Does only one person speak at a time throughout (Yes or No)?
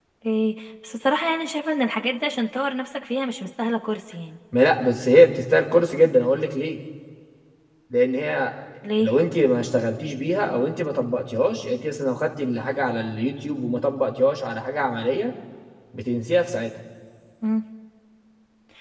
Yes